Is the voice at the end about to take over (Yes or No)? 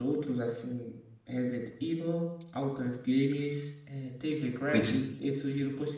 No